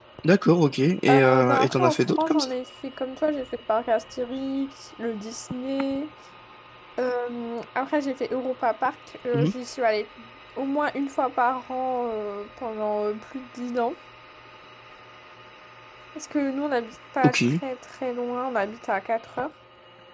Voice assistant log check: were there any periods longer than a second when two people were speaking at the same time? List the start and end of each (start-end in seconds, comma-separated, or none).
1.1-2.5